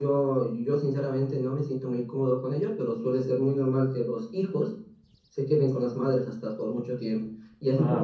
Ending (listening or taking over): listening